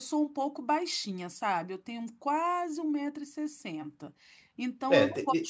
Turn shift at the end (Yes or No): Yes